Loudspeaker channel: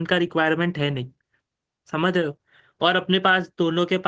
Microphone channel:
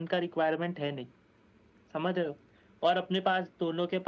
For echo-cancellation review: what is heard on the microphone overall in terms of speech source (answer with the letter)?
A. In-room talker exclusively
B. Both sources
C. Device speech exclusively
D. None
C